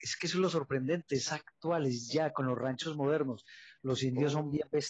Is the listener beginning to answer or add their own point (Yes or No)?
No